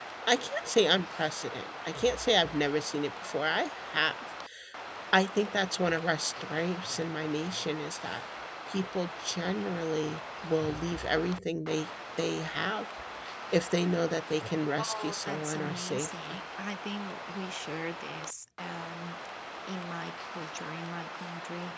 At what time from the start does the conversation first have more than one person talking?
14.8 s

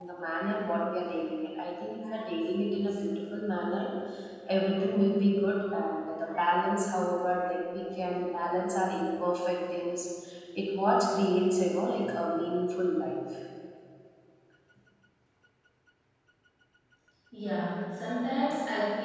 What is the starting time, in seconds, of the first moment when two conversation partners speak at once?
none

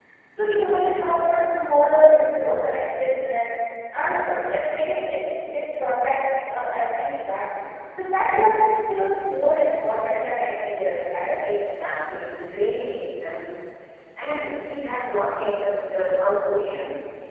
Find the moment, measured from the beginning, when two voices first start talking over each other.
none

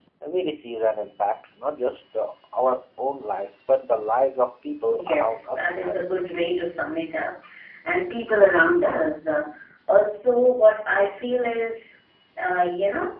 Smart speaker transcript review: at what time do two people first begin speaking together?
4.9 s

